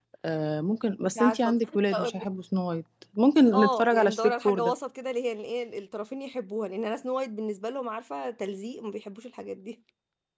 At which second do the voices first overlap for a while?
1.0 s

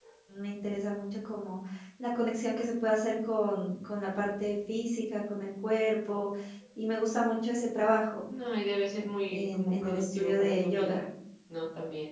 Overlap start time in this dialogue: 9.3 s

